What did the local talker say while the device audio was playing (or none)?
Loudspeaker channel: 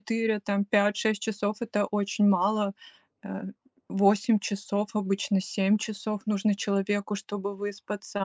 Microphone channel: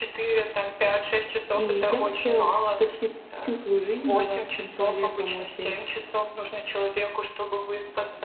И я вообще почти всю свою жизнь была таким человеком очень